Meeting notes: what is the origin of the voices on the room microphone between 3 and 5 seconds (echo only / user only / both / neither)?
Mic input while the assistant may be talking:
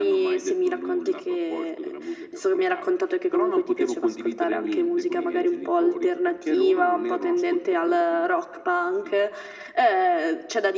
echo only